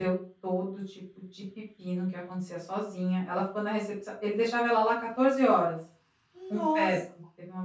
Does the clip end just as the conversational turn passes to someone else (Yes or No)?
No